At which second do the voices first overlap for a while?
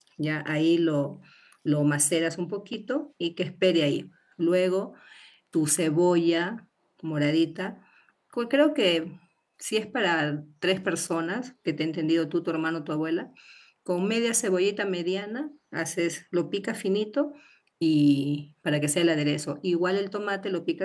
none

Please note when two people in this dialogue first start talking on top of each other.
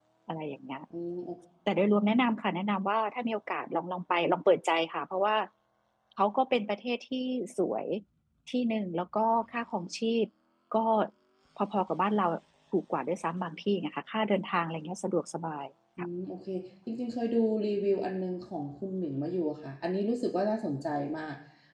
none

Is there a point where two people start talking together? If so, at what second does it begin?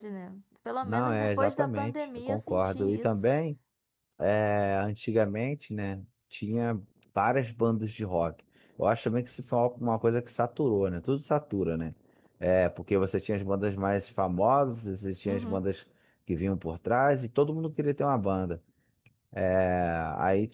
1 s

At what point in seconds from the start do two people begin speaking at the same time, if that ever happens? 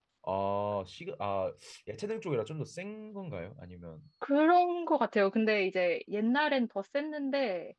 none

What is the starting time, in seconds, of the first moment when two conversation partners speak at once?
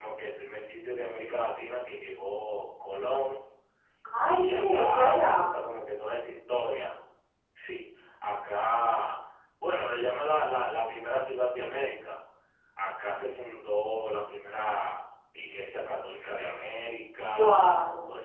4 s

